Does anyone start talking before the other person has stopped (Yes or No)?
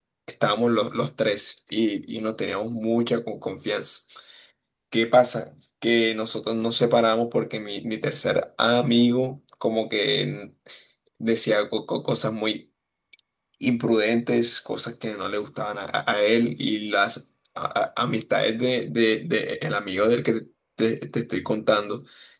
No